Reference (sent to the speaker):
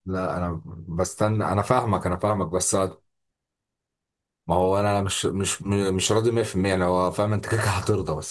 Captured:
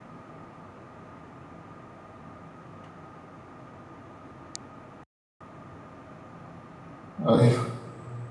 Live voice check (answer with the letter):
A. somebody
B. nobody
A